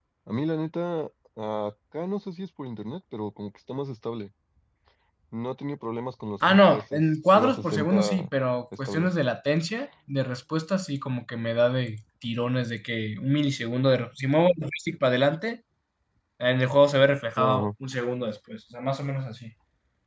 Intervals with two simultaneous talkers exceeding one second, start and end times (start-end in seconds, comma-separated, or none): 6.5-8.3